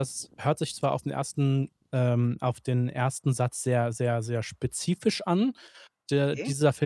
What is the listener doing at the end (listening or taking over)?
listening